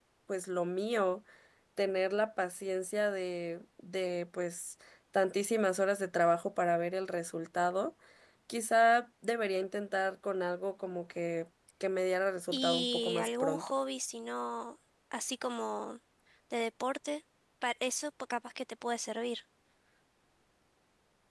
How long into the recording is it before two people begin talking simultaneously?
12.5 s

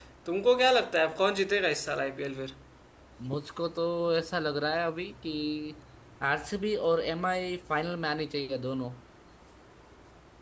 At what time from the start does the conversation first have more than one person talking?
none

